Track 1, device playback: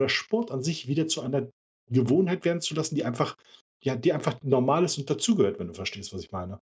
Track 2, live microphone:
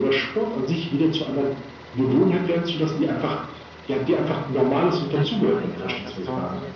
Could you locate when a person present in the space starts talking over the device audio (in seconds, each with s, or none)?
5.1 s